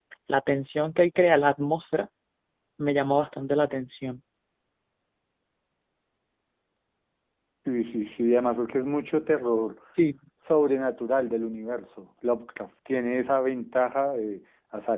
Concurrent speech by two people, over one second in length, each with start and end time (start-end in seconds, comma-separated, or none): none